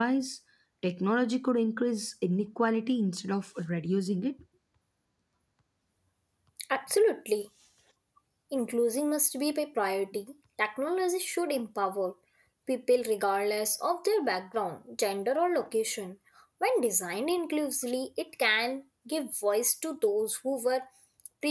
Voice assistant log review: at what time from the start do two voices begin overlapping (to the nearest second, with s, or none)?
none